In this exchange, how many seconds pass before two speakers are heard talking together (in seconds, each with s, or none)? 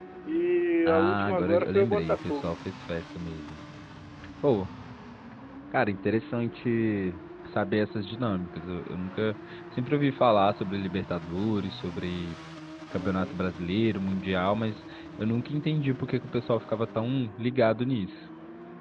0.9 s